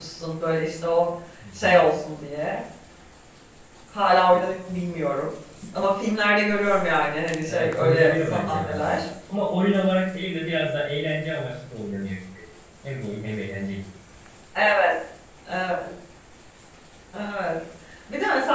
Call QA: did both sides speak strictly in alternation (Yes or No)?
No